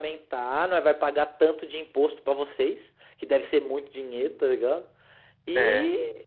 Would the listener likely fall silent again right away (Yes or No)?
Yes